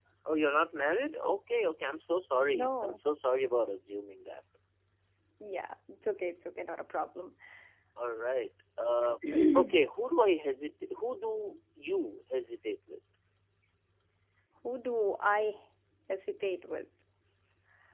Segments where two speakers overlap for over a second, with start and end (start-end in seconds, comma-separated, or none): none